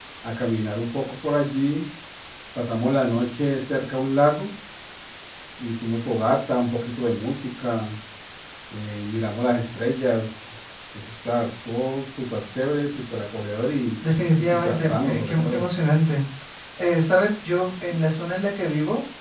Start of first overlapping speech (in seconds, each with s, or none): 14.4 s